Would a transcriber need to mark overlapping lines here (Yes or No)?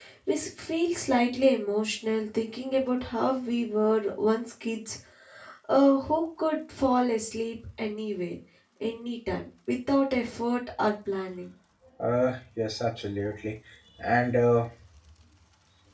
No